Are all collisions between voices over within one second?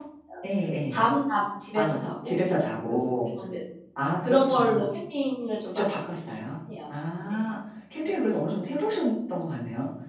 No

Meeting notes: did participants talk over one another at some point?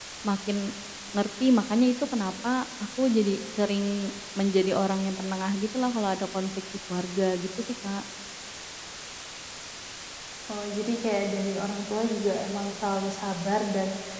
No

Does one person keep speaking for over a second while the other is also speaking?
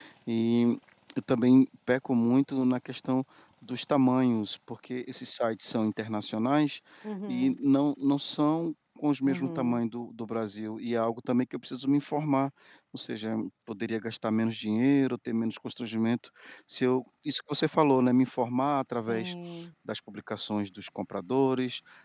No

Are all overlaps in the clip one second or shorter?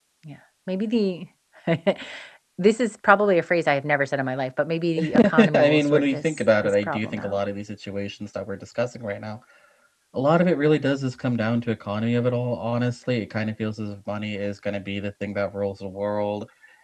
No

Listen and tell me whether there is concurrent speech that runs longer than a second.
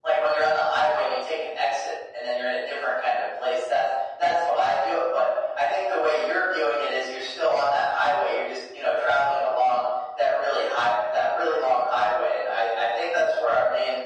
No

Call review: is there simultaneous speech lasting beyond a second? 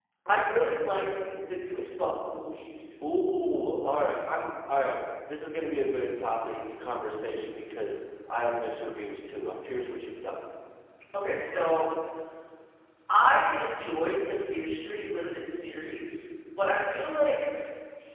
No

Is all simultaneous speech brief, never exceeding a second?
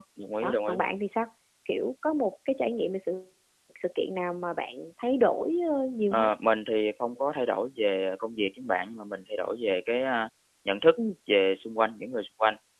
Yes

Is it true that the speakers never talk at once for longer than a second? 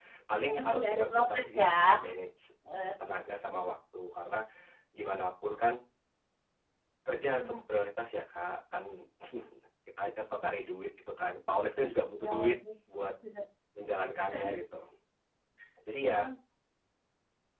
No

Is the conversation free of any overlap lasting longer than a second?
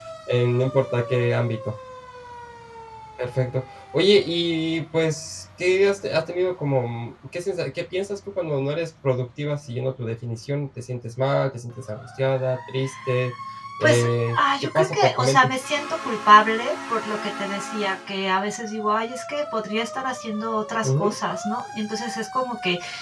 No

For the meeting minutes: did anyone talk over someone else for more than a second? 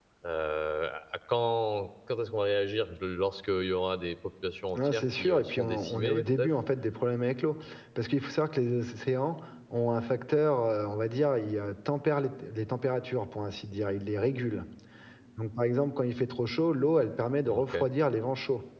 Yes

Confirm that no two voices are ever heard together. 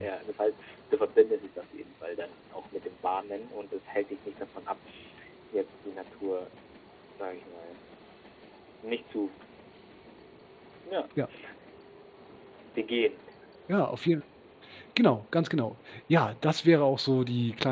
Yes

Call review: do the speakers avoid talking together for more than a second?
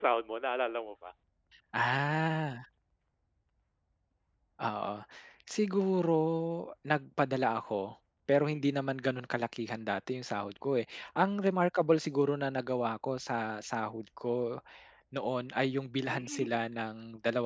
Yes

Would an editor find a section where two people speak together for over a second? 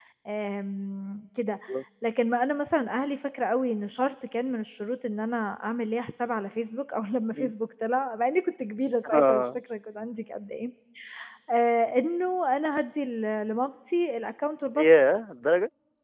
No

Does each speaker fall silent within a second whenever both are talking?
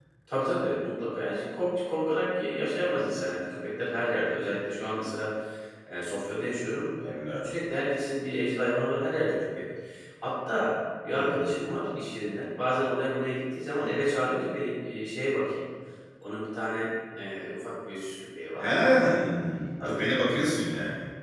Yes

